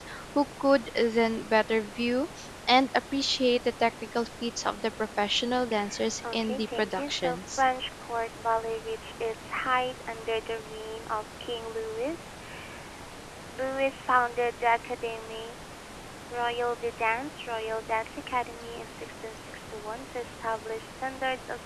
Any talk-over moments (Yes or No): Yes